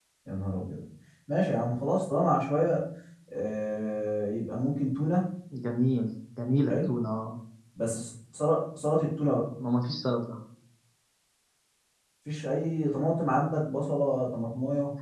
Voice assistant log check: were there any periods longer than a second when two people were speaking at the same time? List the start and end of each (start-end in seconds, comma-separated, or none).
none